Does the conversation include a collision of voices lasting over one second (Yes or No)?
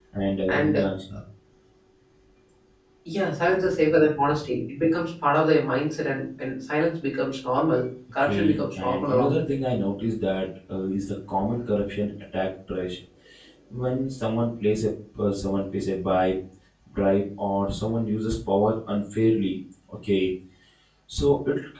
Yes